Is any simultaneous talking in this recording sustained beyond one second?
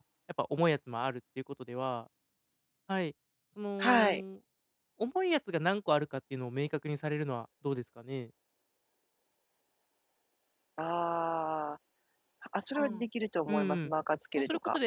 No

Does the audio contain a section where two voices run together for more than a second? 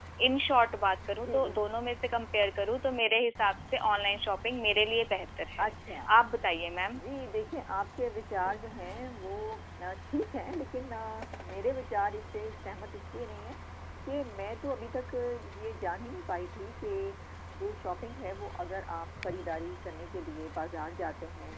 No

